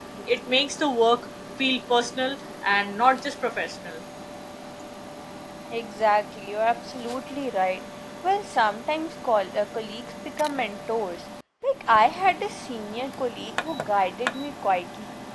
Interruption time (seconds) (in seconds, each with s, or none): none